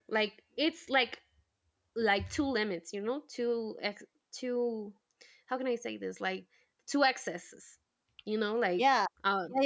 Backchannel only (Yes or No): No